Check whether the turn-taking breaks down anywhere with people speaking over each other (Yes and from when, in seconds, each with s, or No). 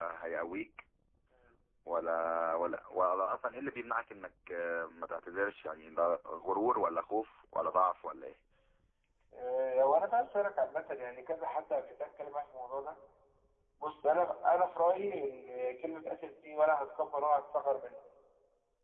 No